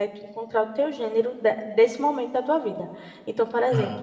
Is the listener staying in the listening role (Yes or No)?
Yes